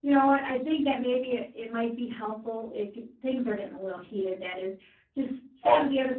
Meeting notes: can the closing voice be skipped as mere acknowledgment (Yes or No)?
Yes